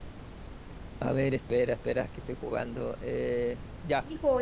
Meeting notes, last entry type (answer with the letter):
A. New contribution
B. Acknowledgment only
A